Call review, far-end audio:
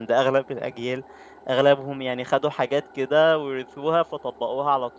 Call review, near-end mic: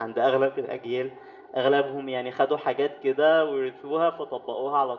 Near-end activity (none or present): none